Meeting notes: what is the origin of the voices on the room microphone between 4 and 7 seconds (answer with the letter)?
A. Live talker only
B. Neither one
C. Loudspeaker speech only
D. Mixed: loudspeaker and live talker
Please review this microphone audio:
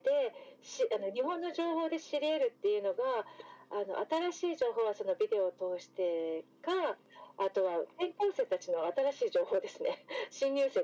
C